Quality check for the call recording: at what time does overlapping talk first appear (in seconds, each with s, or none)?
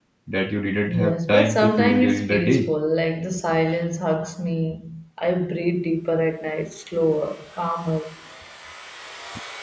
0.9 s